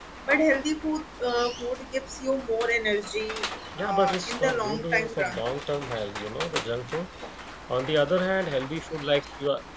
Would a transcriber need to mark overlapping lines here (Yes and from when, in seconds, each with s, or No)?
Yes, from 3.8 s